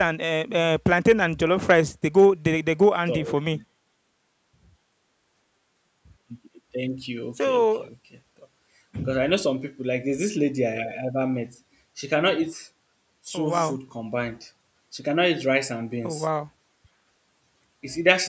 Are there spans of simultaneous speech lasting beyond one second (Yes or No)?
No